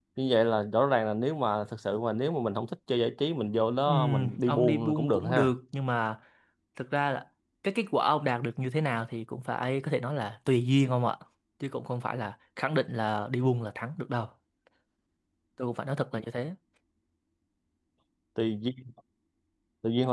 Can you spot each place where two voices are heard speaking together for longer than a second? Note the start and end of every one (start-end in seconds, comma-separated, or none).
3.9-5.5